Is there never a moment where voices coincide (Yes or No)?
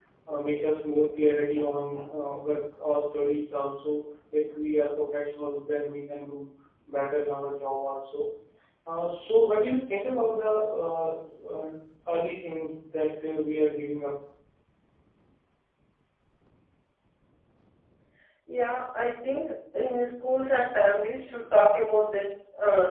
Yes